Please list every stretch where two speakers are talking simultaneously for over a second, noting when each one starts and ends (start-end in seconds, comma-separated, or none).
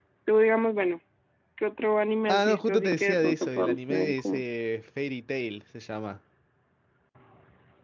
2.3-4.4